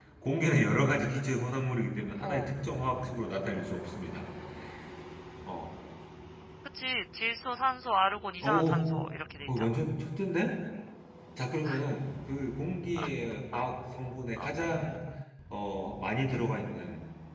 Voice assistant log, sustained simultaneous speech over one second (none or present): none